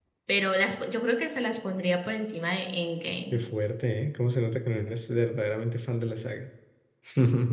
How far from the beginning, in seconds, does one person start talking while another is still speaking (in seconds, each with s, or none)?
none